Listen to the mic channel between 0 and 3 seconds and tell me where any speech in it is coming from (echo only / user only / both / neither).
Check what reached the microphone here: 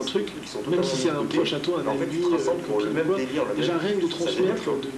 echo only